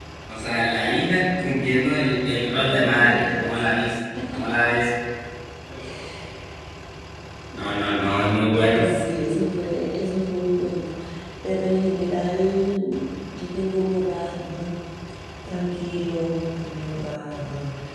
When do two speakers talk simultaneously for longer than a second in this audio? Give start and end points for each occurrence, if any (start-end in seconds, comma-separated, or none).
2.6-3.8